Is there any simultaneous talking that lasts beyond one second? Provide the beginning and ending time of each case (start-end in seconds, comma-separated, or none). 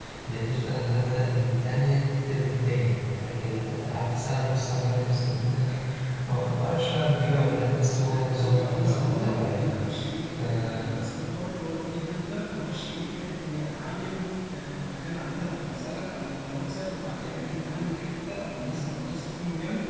7.0-9.6